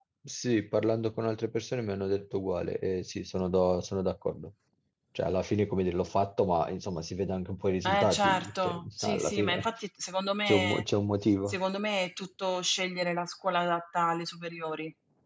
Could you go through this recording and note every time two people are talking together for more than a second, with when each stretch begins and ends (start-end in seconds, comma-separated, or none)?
7.8-9.7